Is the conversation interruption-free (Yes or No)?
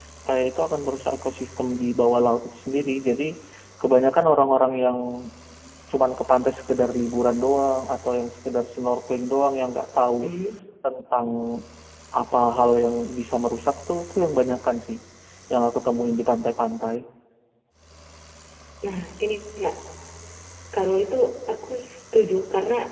Yes